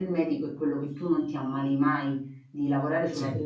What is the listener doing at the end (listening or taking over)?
listening